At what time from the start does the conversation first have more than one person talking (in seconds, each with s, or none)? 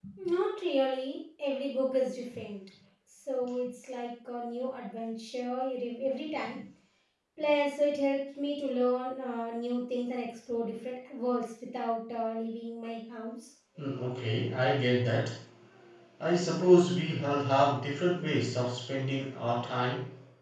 none